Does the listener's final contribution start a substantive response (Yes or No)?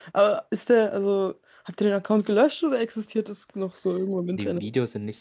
Yes